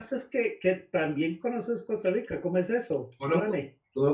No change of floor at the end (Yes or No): No